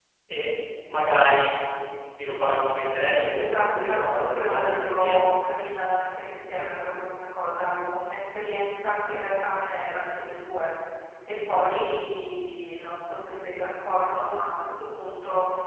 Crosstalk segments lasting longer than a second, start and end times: 3.0-5.2

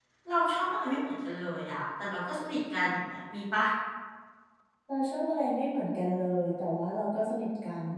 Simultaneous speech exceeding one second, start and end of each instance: none

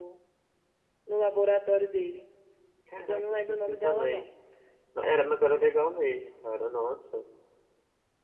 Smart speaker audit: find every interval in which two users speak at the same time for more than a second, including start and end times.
3.0-4.3

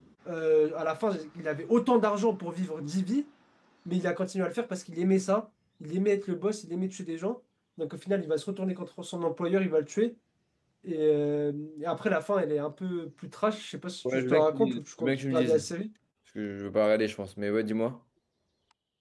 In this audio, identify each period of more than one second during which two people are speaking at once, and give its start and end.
14.1-15.6

